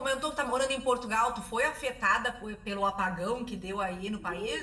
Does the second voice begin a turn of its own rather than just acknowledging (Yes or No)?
Yes